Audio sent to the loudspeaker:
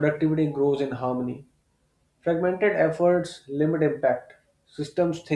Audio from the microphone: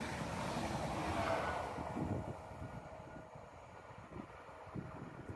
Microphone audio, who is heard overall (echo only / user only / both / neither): neither